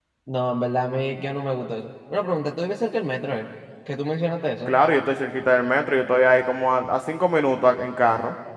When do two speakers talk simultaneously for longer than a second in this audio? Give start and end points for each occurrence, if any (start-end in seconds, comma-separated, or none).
none